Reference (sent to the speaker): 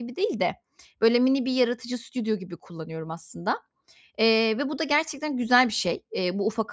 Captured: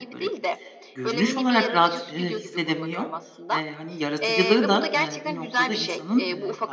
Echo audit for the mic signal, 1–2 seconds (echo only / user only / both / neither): both